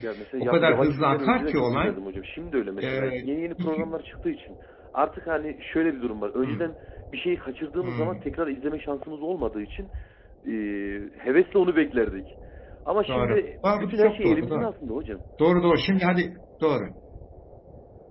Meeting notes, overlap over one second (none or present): present